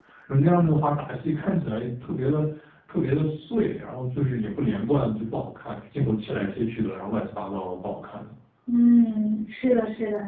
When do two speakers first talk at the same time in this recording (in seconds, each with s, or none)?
none